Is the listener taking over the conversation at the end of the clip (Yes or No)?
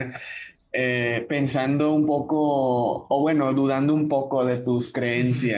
Yes